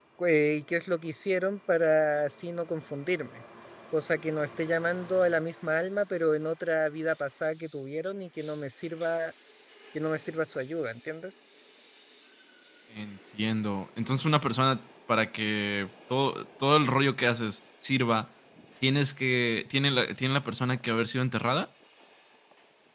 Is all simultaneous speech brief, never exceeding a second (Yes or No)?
Yes